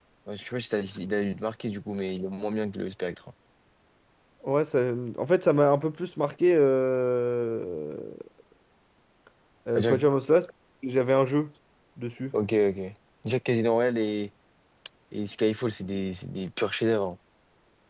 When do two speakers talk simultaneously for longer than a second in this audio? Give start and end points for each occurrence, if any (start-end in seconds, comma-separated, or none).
none